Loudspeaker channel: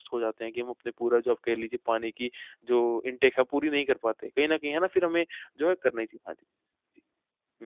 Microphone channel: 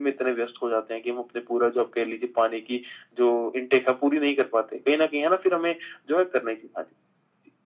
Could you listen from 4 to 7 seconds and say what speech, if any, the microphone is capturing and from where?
echo only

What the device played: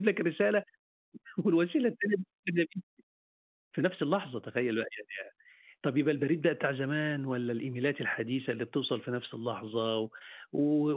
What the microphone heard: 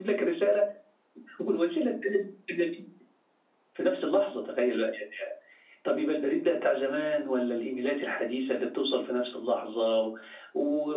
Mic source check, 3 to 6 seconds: echo only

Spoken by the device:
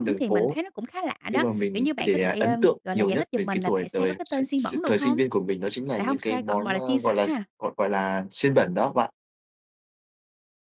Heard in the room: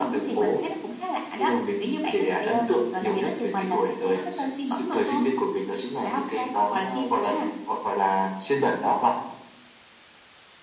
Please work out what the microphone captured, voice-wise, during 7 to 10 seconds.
echo only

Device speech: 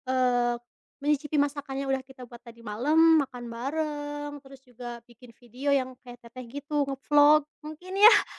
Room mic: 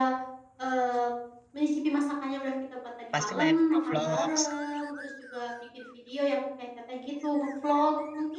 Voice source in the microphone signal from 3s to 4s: both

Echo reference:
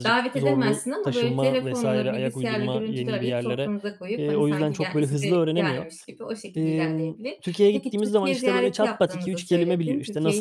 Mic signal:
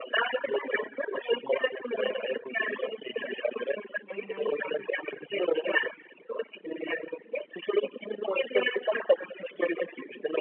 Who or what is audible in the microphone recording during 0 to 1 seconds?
echo only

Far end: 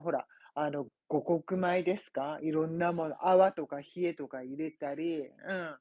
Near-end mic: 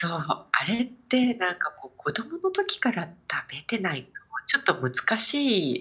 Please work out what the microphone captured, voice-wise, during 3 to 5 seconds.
user only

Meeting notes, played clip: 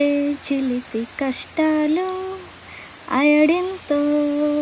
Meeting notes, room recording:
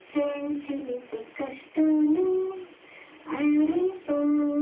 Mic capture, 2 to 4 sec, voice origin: echo only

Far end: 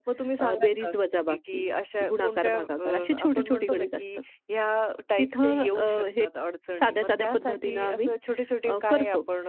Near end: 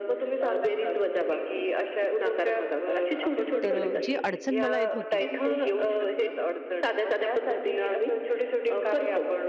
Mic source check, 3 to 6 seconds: both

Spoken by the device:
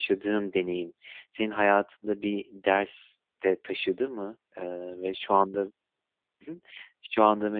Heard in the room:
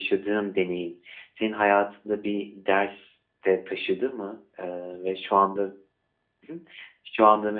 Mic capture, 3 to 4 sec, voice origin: echo only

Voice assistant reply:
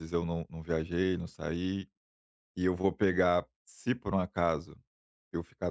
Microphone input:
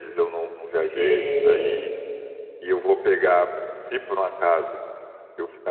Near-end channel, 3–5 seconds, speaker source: echo only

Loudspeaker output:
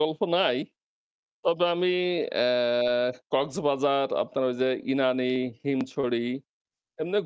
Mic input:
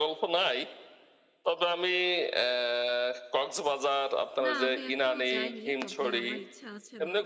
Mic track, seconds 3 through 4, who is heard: echo only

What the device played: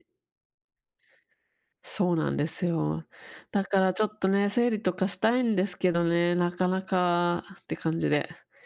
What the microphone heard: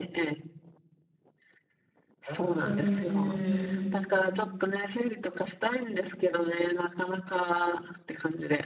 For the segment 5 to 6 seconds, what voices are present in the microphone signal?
echo only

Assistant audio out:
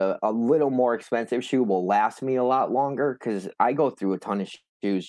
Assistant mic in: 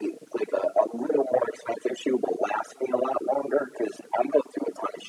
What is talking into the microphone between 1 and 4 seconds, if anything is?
echo only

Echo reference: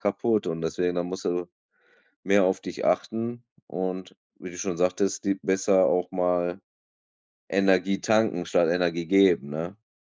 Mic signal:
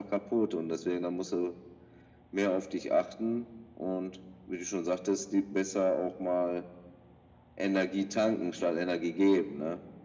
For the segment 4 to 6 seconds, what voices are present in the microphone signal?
echo only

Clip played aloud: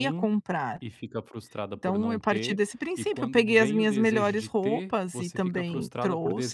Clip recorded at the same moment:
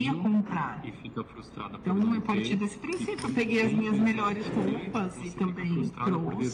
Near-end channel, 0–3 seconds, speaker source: echo only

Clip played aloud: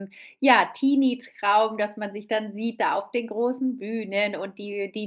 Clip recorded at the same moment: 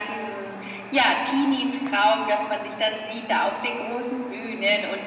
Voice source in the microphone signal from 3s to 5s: echo only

